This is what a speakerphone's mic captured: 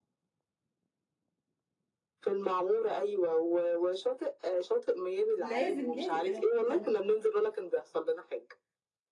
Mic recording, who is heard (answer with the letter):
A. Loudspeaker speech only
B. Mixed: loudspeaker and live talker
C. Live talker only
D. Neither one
B